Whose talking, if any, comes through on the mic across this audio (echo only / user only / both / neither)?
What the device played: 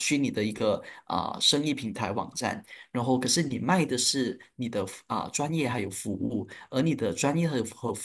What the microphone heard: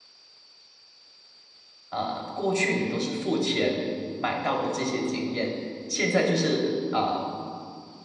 user only